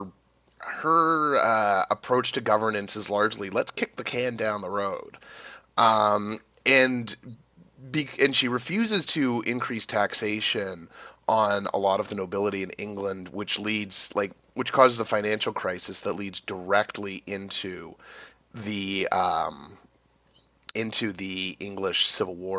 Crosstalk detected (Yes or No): No